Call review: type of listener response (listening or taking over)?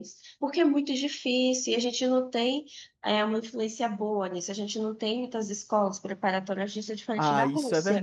taking over